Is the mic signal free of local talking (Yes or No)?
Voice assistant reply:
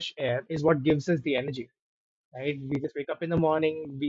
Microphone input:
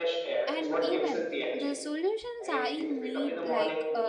No